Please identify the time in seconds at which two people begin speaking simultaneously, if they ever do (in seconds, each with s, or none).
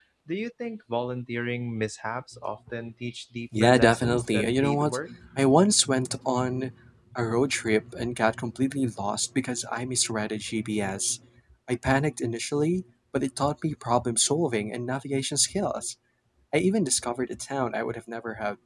3.5 s